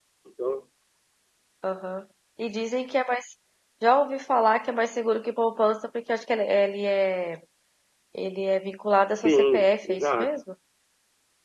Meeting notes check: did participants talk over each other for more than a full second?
Yes, from 9.1 s

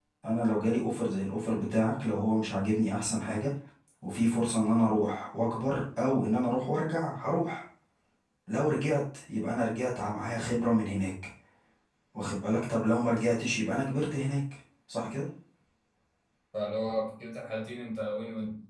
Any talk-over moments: No

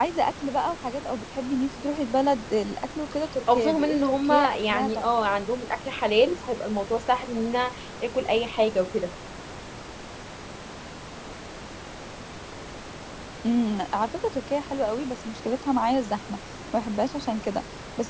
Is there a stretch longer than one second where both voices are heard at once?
Yes, from 3.5 s

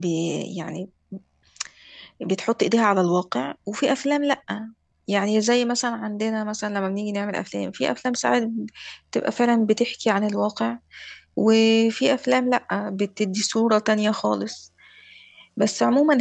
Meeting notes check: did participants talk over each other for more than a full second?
No

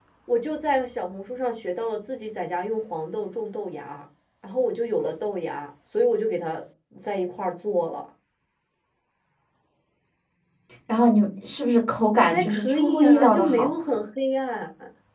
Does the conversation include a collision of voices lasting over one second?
Yes, from 12.3 s

